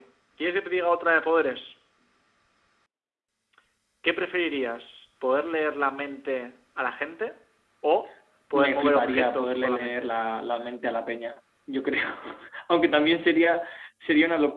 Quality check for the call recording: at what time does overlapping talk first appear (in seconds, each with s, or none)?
8.5 s